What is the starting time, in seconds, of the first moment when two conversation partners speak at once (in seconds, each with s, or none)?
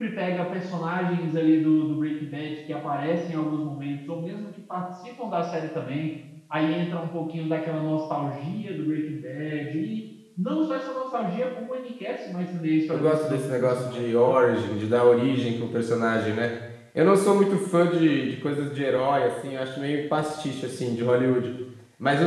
12.9 s